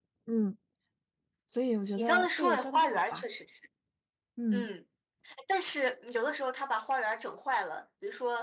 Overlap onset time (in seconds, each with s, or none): 2.0 s